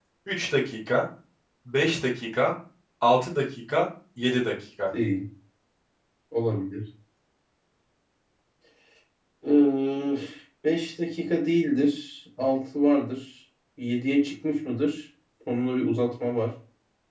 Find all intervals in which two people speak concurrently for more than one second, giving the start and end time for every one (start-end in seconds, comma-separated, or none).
none